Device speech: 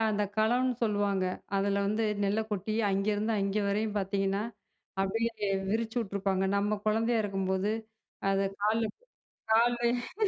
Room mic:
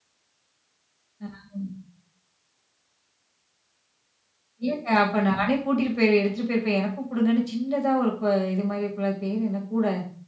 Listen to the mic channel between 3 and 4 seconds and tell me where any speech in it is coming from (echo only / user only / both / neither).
neither